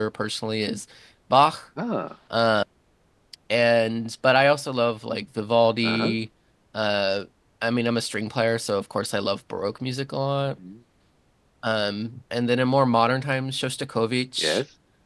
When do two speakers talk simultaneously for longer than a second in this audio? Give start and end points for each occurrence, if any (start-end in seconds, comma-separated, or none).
none